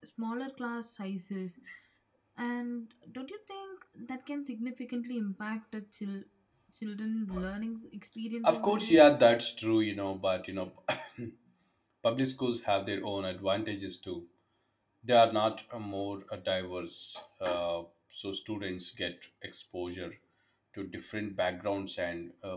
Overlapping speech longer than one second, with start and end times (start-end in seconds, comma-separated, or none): none